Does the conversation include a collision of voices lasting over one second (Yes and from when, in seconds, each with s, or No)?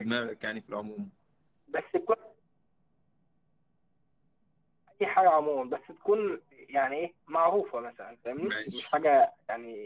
No